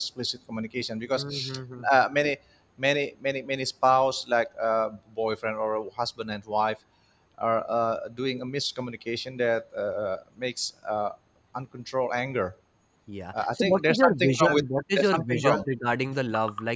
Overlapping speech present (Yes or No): Yes